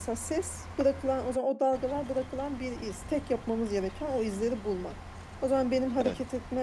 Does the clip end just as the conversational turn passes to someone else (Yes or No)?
No